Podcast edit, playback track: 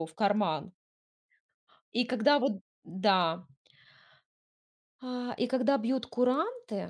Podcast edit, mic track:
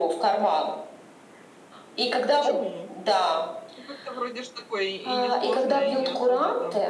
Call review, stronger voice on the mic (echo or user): echo